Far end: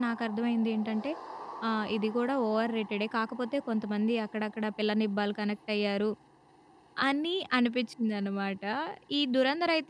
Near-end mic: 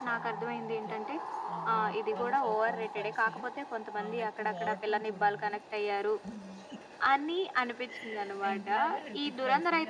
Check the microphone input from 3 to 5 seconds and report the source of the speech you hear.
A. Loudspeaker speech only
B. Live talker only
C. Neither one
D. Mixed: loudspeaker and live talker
D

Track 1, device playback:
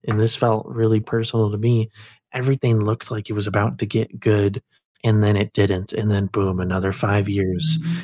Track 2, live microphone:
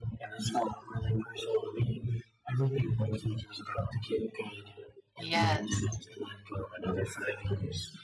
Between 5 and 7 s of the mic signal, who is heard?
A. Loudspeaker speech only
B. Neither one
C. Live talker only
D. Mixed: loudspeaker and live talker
D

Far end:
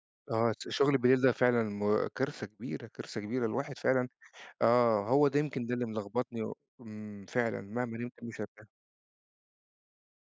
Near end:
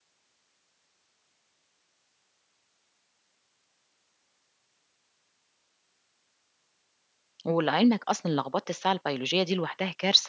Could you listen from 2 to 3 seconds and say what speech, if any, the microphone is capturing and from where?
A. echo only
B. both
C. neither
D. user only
C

